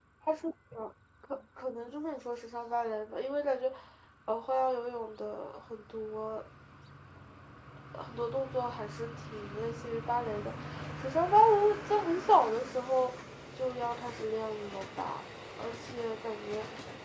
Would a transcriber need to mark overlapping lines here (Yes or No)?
No